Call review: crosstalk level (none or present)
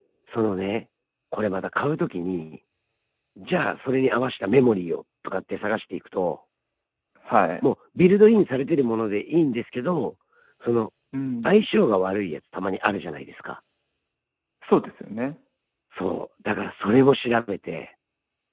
none